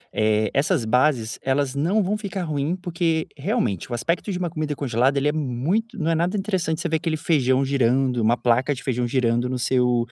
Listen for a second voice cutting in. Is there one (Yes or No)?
No